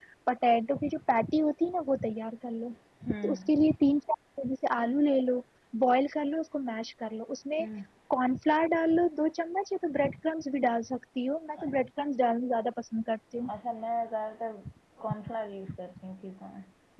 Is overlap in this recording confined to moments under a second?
Yes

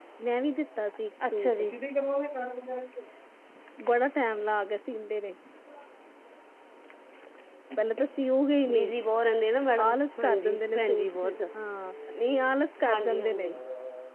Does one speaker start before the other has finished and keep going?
Yes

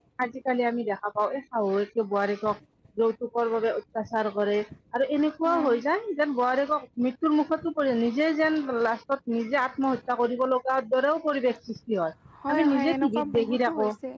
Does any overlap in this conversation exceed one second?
Yes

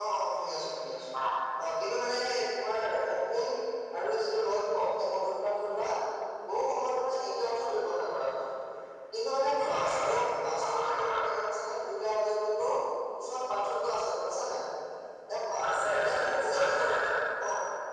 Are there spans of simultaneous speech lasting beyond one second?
Yes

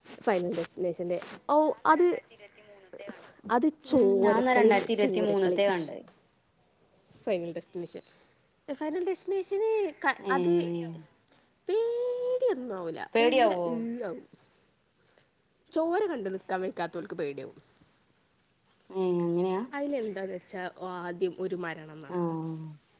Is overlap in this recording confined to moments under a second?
No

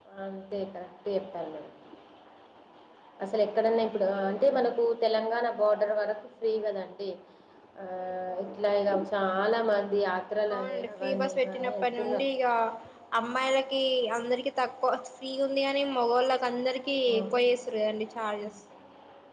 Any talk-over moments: Yes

